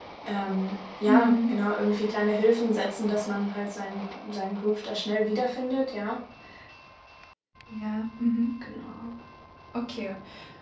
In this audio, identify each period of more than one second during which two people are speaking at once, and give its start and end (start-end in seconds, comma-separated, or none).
none